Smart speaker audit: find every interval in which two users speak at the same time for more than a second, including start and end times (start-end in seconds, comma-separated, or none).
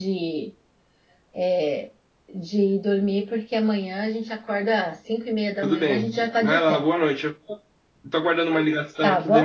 5.6-6.8